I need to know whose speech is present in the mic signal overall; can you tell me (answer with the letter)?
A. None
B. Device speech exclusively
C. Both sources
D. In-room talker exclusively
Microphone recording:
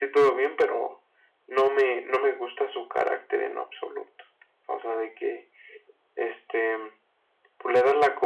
B